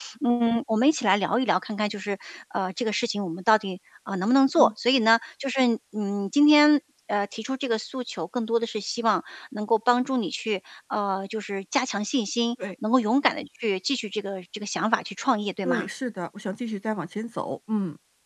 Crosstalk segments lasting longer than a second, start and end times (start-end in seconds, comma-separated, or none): none